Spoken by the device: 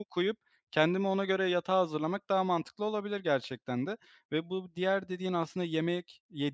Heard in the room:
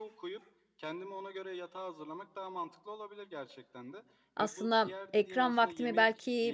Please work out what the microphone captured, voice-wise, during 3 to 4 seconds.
echo only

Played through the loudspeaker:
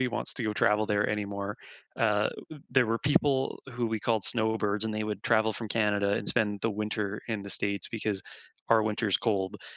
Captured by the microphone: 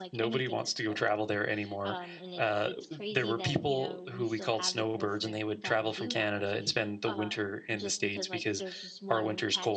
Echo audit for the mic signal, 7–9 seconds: both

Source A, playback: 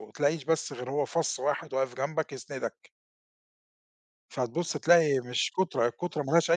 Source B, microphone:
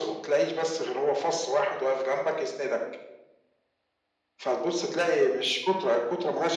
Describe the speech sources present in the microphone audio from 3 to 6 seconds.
echo only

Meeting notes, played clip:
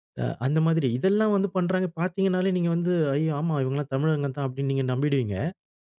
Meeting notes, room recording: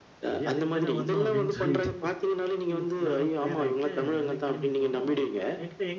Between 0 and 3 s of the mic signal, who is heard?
both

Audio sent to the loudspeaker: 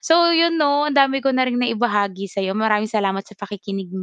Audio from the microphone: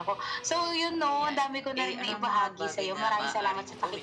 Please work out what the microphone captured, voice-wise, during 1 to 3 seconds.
both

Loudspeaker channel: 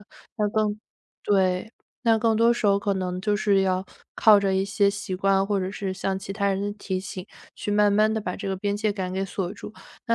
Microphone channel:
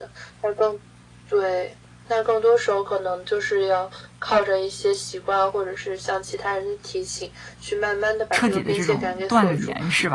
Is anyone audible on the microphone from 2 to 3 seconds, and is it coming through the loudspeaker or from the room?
echo only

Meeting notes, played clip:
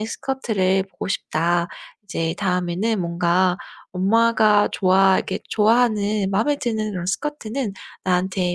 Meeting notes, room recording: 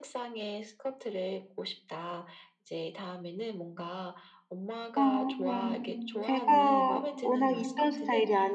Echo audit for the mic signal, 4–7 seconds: both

